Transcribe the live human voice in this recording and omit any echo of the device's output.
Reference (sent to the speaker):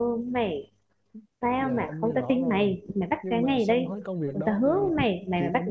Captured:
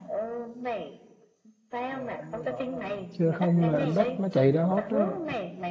chứ không là em bắt nó chạy ra hết đó

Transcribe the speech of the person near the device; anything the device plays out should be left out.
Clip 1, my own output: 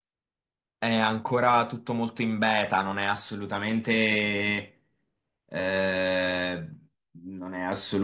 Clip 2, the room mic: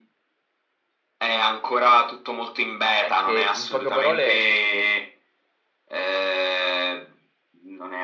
è che, in poche parole,

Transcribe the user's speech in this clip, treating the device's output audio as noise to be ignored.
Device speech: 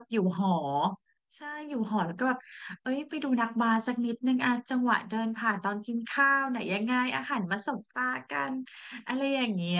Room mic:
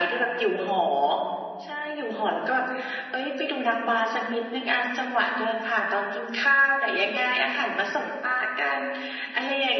none

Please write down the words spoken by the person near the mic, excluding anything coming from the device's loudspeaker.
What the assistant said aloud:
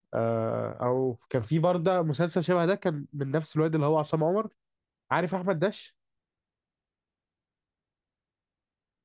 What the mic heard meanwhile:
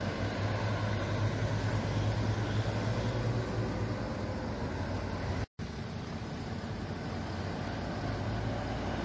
none

